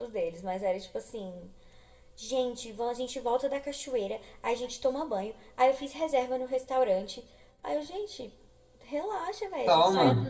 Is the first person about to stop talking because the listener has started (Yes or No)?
No